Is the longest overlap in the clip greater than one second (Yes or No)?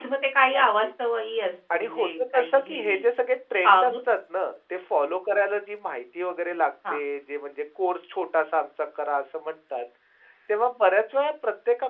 Yes